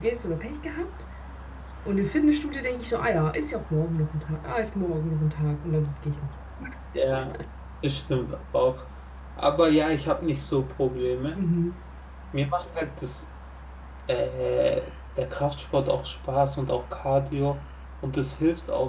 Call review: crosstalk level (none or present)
none